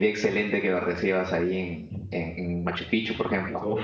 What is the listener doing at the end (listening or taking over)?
taking over